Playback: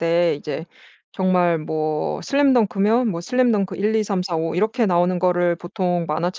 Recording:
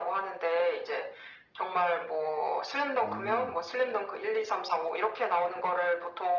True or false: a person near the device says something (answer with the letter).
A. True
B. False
A